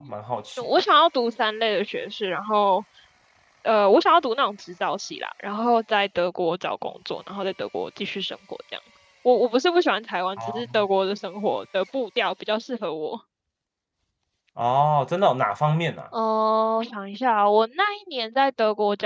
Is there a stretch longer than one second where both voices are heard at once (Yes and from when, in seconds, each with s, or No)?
No